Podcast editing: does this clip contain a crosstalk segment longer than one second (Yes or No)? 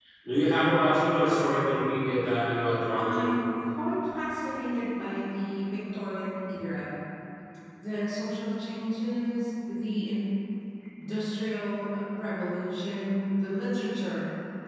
No